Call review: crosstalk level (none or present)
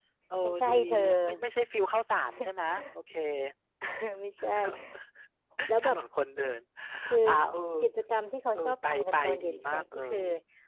present